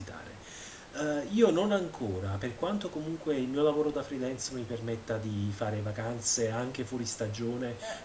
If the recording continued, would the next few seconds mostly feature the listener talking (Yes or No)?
No